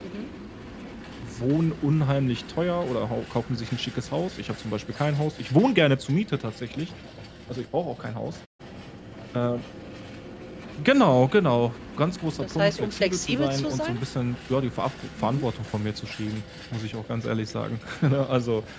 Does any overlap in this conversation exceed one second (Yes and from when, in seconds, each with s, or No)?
Yes, from 12.4 s